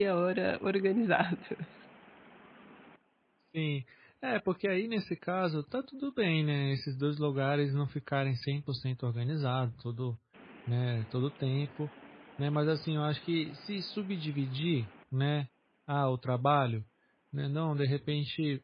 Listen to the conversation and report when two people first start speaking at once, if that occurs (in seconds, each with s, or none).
none